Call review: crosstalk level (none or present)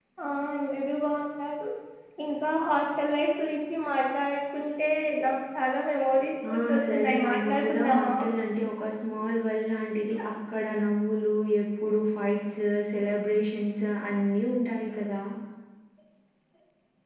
present